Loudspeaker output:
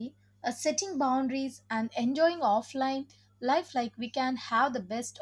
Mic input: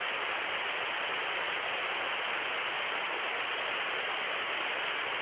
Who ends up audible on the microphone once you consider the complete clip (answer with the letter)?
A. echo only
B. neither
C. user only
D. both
B